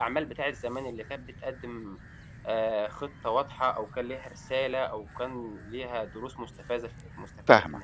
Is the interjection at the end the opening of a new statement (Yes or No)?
Yes